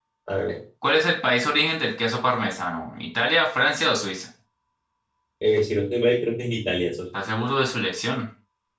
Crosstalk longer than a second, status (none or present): none